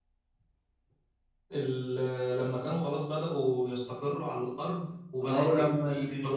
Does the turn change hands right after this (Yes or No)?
Yes